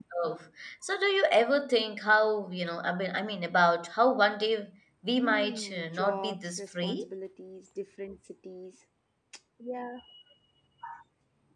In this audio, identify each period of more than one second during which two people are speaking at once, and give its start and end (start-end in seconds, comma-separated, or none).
5.2-7.0